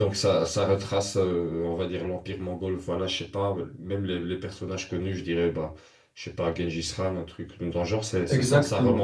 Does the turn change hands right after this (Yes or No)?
Yes